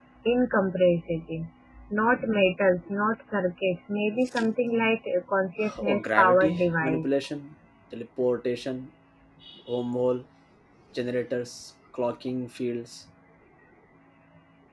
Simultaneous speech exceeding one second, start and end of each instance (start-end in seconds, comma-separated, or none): 5.8-7.0